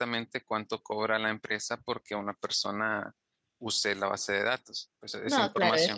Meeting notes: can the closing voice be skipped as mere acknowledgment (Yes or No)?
No